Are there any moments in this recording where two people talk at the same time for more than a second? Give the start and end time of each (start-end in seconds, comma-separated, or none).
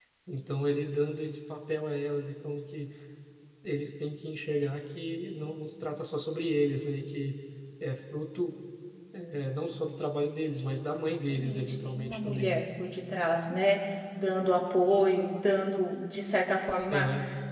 11.1-12.7